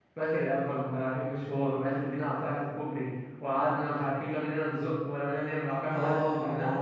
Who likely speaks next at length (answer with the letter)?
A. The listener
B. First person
A